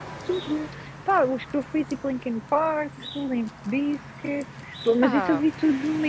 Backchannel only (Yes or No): Yes